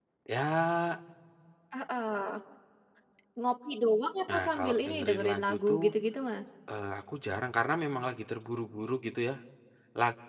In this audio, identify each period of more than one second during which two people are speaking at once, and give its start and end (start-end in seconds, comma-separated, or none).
4.3-5.8